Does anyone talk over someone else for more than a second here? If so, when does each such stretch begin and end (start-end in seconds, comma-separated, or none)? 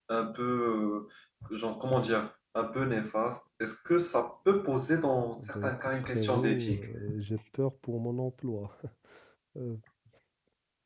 5.4-6.8